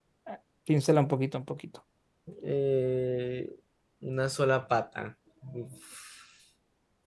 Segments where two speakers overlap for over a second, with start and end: none

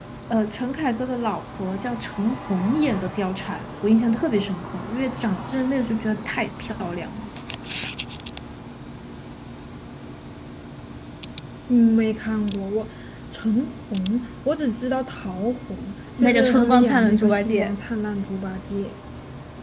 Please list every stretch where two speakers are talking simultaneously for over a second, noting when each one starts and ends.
16.2-17.7

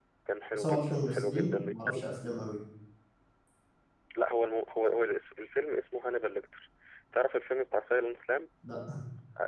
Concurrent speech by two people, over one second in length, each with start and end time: 0.5-2.0

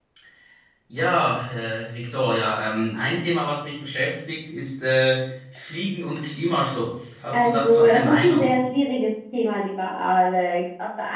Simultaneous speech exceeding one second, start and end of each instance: 7.3-8.6

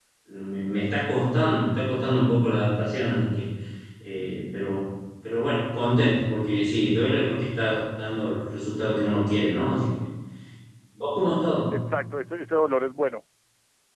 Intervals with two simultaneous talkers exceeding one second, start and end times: none

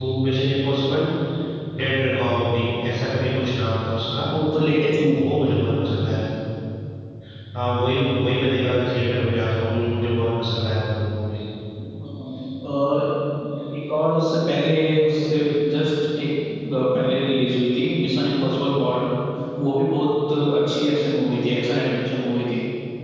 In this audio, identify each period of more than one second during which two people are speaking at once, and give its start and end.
none

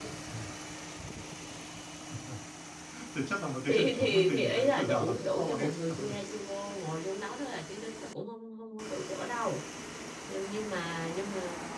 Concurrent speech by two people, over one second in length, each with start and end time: 3.7-6.1

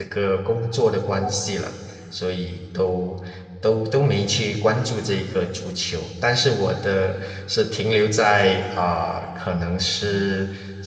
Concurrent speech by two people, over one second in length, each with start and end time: none

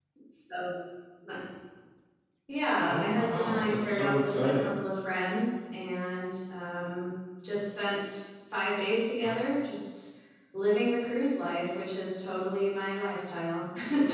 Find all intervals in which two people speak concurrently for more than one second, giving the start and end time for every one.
2.9-4.7

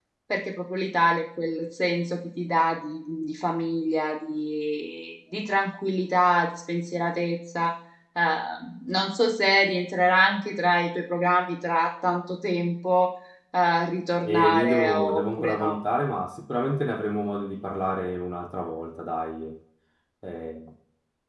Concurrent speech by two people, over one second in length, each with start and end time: 14.2-15.8

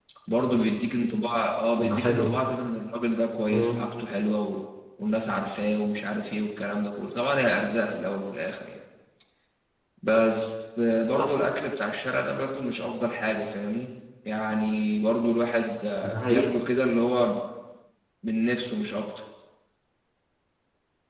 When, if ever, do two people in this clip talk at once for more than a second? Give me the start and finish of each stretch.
none

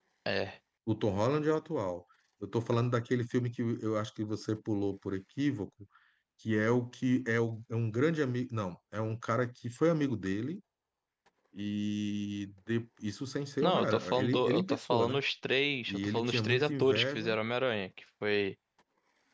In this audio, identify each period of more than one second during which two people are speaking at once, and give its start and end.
13.6-15.2, 15.9-17.3

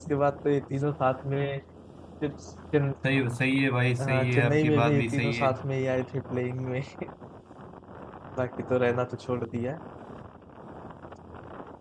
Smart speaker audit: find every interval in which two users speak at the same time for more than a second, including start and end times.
4.0-5.5

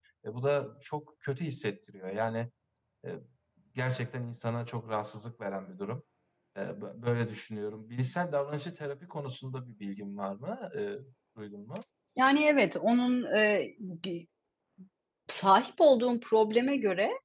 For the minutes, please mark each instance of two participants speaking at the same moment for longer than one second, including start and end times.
none

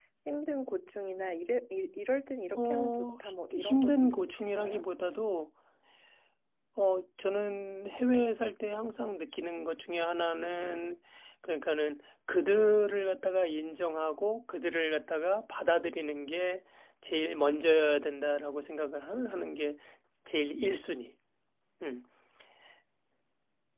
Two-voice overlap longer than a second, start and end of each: 2.6-4.8

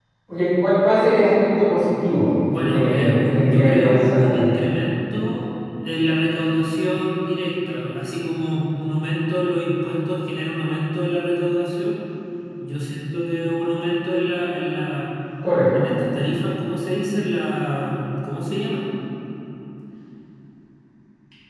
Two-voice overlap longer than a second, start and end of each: 2.5-4.5

